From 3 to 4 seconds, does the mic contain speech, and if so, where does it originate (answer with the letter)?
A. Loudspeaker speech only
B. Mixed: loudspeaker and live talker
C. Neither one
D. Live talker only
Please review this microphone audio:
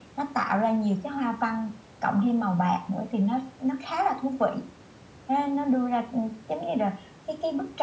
A